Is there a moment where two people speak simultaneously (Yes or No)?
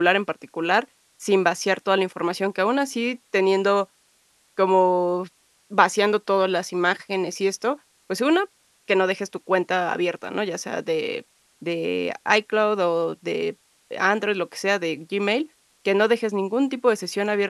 No